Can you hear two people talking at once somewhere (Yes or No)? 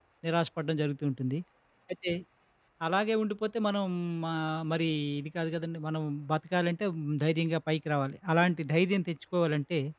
No